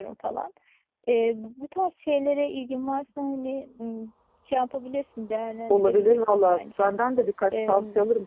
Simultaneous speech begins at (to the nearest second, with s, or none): 6 s